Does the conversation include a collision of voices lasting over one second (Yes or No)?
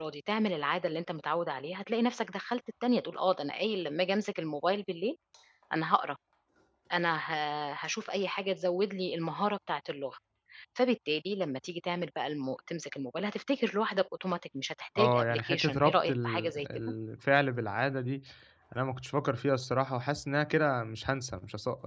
Yes